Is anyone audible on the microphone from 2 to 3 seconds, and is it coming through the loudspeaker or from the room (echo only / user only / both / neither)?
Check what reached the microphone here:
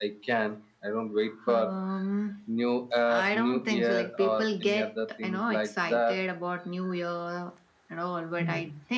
echo only